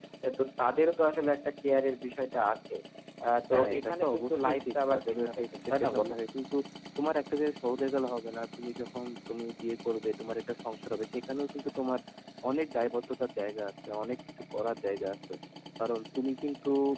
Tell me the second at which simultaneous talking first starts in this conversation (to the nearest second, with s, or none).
4 s